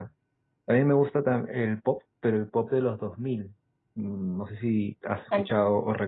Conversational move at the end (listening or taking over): listening